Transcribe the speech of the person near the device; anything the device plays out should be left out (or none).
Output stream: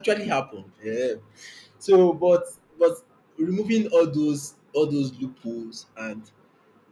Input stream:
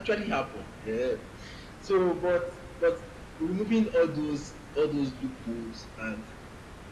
none